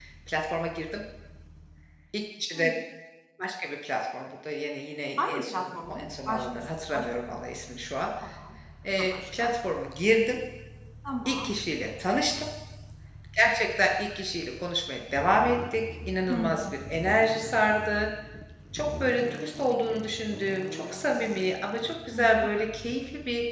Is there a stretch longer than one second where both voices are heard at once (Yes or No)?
Yes